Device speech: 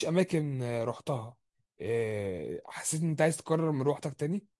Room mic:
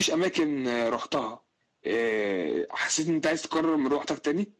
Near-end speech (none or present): none